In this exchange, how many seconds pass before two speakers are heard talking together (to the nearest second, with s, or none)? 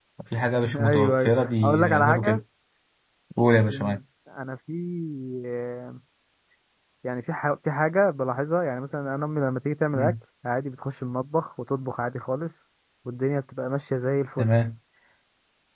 1 s